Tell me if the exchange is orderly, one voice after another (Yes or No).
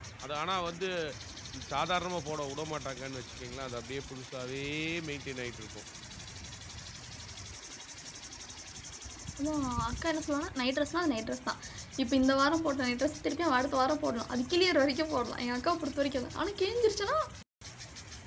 Yes